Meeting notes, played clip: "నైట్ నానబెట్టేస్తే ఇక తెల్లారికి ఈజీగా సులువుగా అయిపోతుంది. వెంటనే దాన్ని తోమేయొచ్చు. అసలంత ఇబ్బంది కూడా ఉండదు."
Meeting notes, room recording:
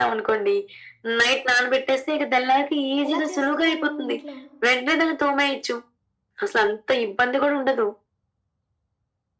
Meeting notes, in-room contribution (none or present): present